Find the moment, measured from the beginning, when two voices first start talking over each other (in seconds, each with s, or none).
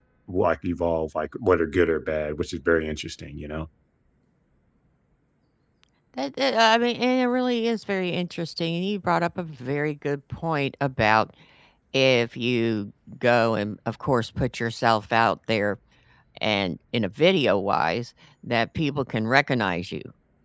none